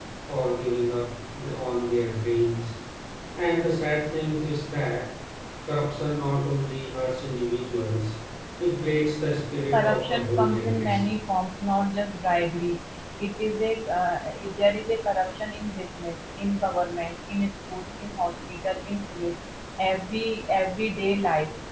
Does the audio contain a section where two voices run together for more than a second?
Yes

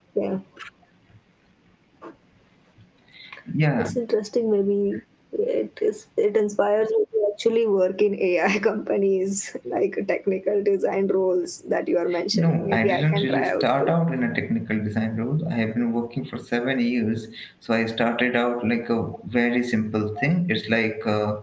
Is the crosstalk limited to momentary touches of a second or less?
No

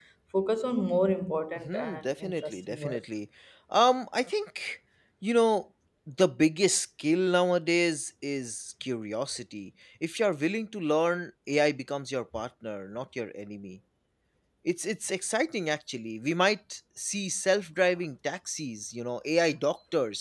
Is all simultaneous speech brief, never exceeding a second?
No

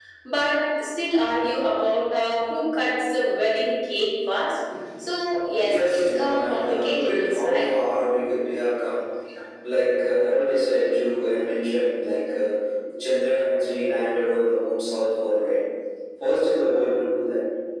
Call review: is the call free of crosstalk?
No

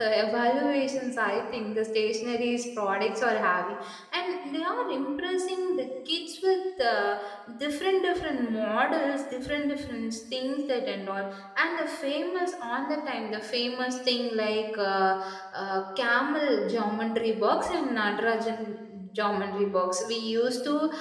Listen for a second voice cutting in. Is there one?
No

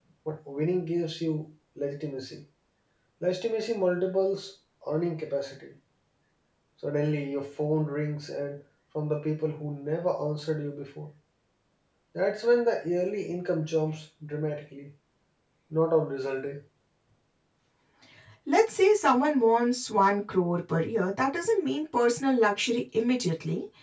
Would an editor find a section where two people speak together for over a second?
No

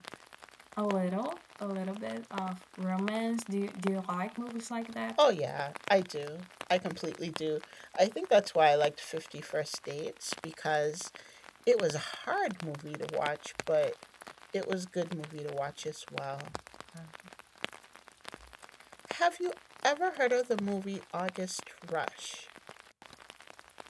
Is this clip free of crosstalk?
Yes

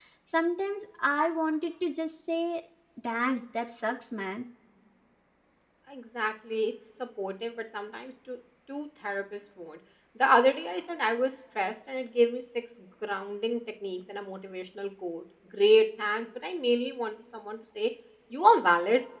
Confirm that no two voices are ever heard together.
Yes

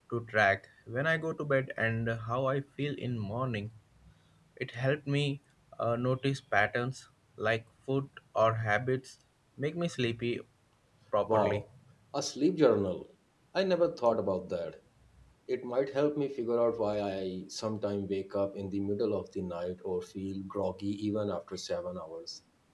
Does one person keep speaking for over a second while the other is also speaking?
No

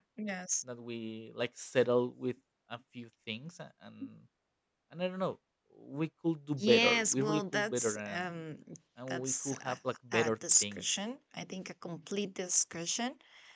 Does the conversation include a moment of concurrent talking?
Yes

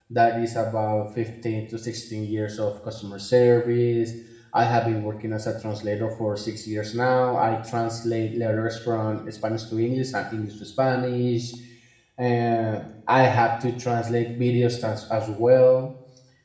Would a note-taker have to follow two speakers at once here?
No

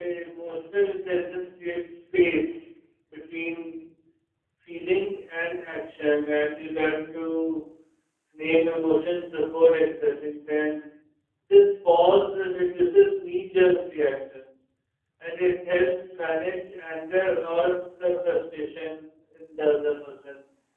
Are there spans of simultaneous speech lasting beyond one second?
No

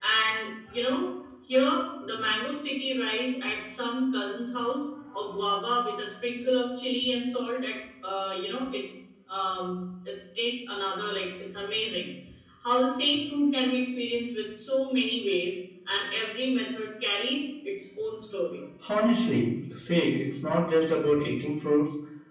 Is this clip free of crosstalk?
Yes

